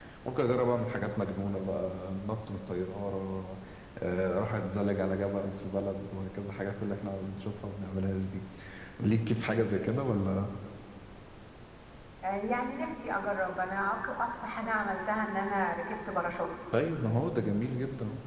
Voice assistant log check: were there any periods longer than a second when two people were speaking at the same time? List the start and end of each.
none

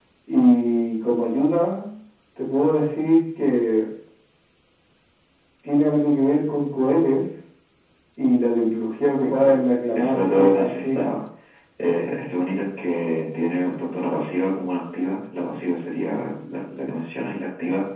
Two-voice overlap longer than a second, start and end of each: 9.9-11.2

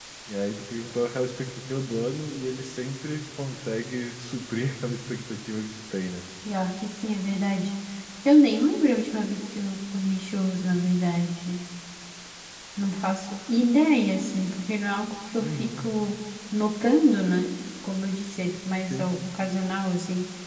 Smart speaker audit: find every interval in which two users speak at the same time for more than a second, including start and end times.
none

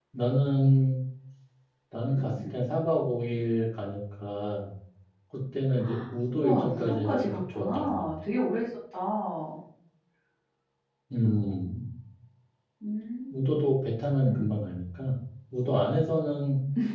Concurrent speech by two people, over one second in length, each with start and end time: 6.3-8.0

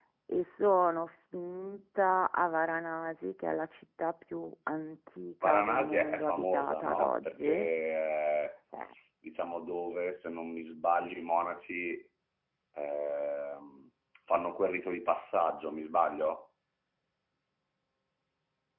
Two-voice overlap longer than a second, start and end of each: 5.4-7.7

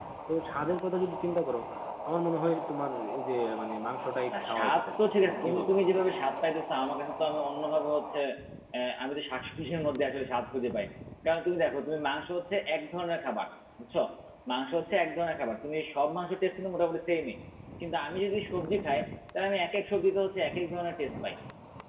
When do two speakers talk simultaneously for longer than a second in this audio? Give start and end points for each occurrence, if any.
4.3-5.7

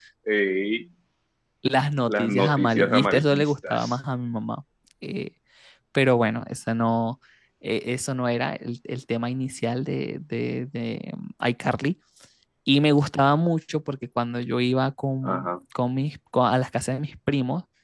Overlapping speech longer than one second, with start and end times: 2.1-4.0

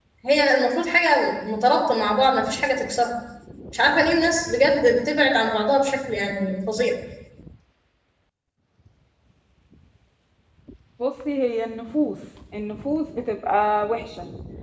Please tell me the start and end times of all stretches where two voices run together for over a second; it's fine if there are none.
none

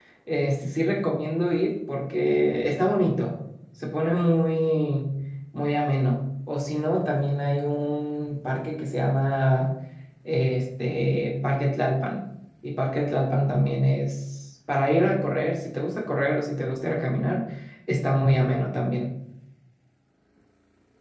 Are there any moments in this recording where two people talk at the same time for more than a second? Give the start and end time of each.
none

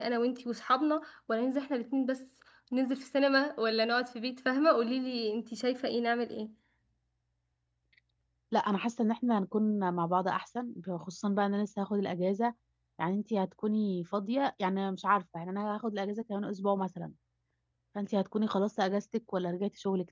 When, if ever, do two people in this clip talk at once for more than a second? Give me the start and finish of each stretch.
none

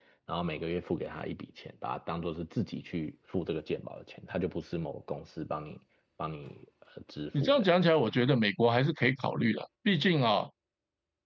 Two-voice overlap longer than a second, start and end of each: none

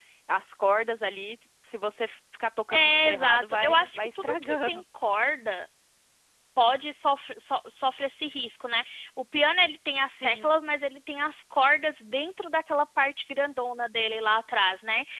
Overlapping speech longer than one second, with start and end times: 2.7-4.8

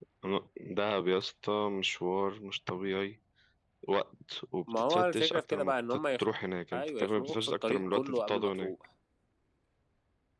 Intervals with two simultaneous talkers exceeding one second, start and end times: 4.7-6.2, 6.7-8.7

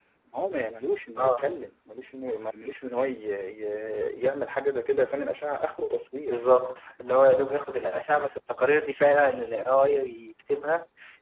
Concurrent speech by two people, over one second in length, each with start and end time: none

